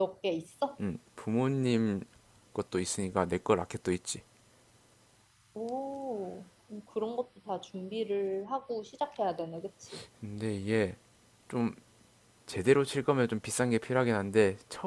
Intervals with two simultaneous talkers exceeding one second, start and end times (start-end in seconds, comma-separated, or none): none